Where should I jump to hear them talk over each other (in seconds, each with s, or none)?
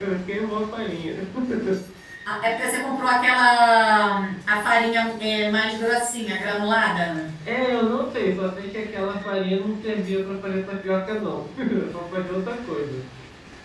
none